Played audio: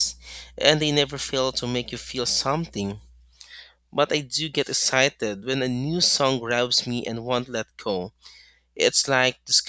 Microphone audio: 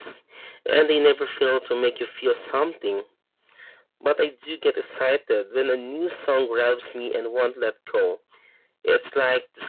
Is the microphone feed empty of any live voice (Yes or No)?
Yes